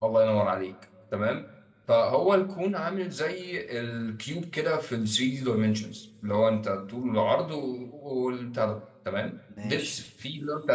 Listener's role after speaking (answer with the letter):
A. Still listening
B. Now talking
A